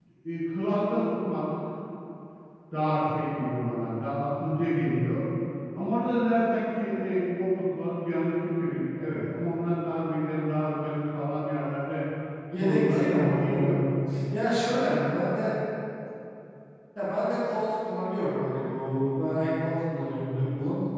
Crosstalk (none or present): present